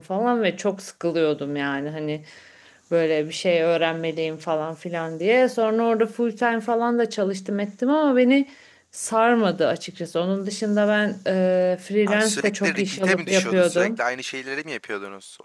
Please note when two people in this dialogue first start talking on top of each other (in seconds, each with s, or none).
12.1 s